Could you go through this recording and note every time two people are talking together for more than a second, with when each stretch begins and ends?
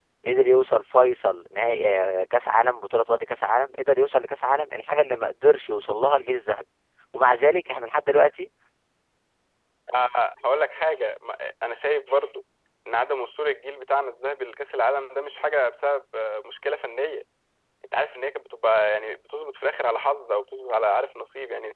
none

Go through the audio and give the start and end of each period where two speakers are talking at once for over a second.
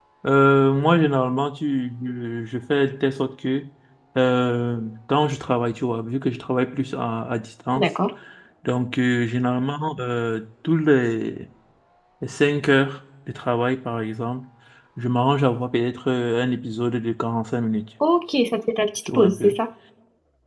none

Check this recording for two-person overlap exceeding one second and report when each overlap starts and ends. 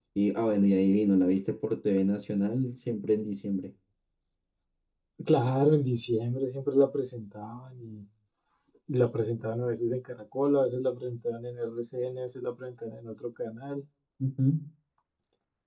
none

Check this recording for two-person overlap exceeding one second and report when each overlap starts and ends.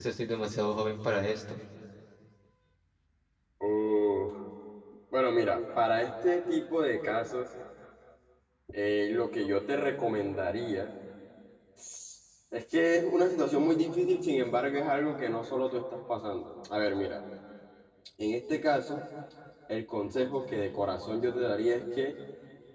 none

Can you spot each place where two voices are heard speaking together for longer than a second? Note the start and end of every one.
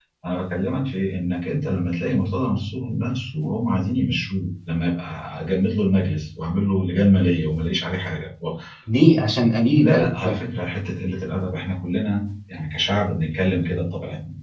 none

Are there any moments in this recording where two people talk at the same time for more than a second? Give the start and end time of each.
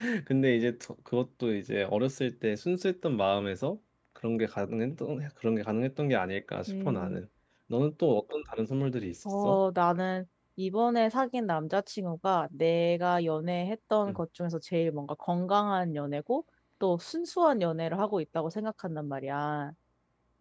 none

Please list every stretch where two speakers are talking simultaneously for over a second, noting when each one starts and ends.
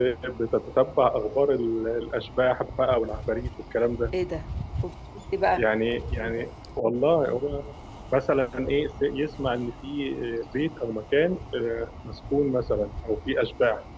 none

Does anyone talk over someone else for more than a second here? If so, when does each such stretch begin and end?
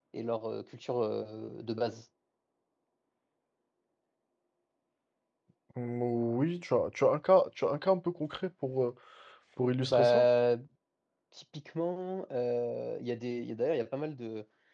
none

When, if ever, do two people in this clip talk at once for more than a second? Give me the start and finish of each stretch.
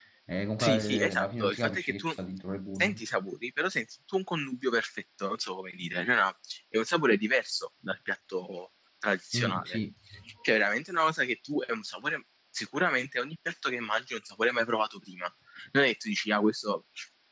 0.6-2.1

